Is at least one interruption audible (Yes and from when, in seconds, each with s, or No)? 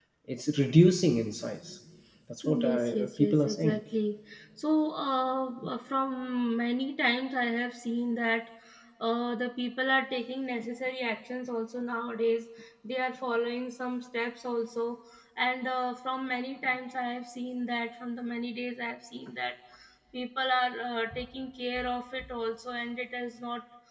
Yes, from 2.4 s